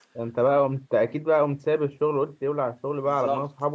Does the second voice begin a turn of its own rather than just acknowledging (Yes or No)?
Yes